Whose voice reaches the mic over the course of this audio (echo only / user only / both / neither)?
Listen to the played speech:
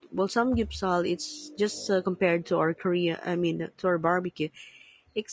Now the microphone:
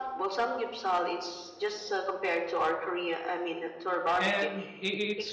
both